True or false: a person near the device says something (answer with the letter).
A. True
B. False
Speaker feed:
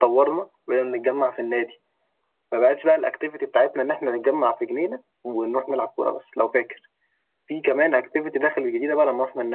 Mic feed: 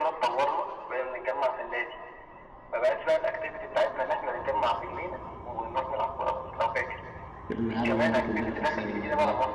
A